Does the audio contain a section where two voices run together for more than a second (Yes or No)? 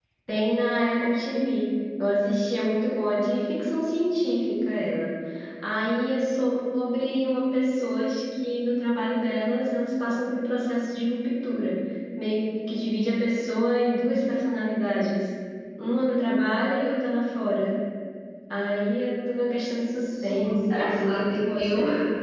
Yes